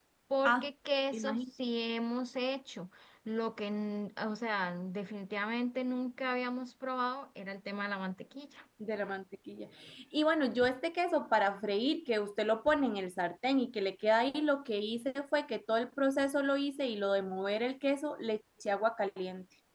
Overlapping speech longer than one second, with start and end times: none

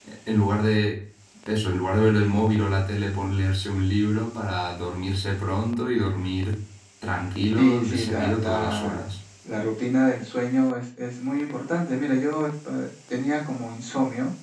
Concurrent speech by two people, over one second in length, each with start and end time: 7.6-9.0

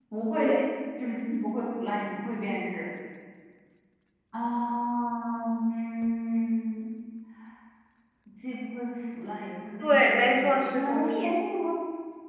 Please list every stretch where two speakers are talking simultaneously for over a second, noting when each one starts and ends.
9.8-11.3

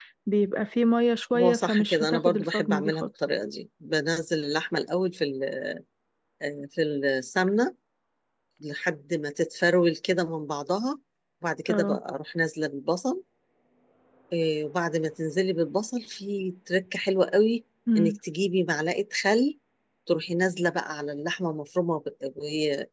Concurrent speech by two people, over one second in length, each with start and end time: 1.3-3.1

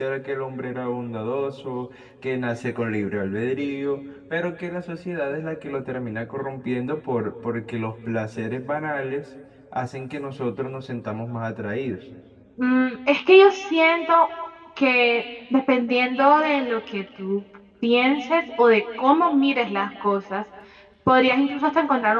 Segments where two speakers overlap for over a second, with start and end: none

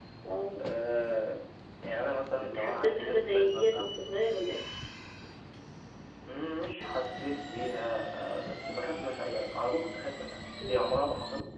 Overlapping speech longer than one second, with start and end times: 2.4-3.9

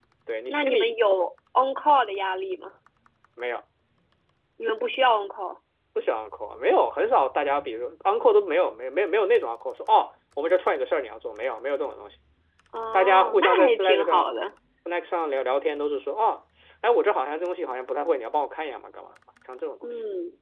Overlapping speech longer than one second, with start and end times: 12.9-14.3

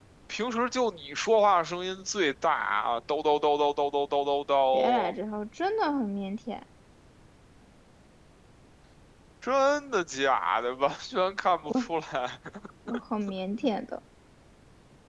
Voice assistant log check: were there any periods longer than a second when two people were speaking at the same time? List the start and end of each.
none

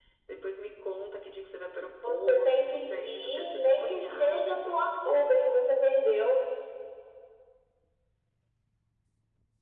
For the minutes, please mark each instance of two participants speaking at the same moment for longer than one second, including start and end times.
2.0-4.5

